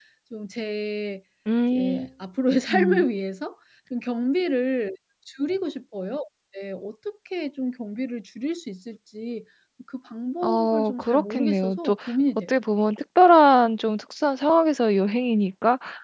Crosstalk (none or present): present